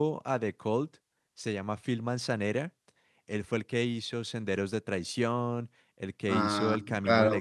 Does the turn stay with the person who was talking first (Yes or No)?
No